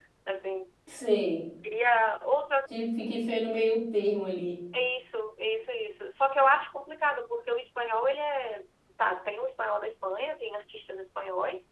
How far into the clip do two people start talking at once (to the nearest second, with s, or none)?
none